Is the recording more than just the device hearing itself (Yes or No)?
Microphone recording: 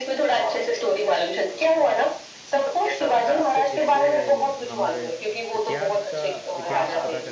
Yes